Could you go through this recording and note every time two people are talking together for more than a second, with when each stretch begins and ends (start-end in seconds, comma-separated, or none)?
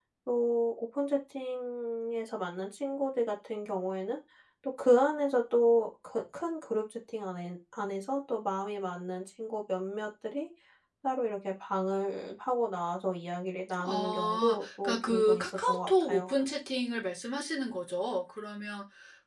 13.8-16.3